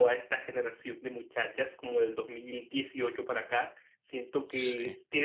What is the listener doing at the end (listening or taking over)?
listening